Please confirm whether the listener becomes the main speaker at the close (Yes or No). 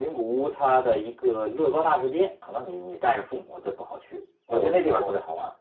Yes